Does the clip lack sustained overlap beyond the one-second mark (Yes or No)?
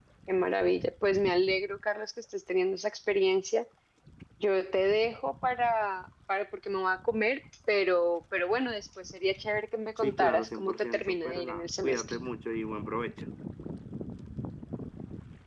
No